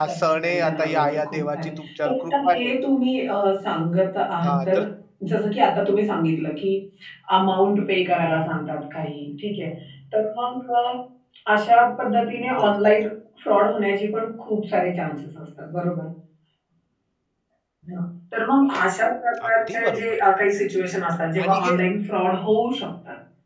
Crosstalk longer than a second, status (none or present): present